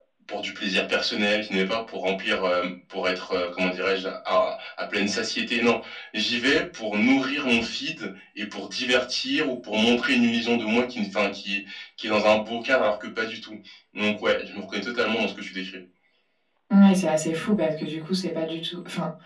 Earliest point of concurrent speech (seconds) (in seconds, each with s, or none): none